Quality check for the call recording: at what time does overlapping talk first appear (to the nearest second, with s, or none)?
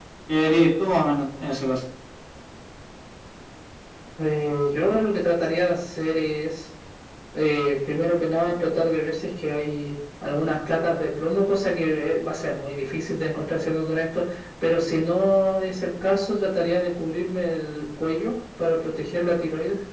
none